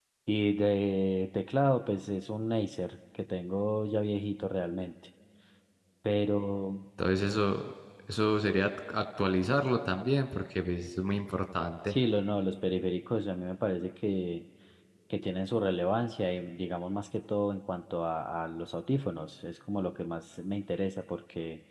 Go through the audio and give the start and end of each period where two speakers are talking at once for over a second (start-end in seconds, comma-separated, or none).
none